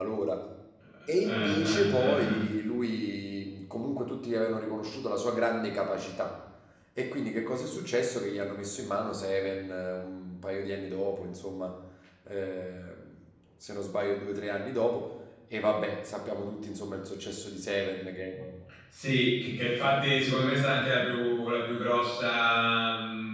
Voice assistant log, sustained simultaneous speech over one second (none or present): present